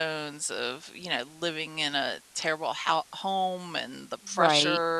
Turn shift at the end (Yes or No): No